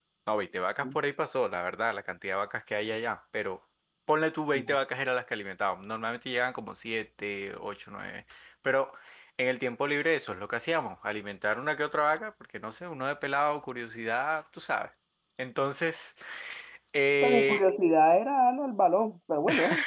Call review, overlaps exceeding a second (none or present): none